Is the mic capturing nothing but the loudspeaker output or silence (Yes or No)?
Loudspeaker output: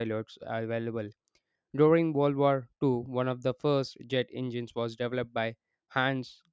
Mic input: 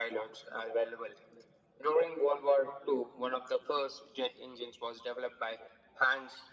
Yes